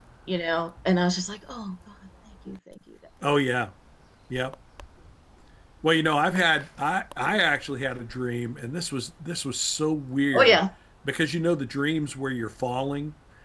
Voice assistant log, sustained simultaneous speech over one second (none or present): none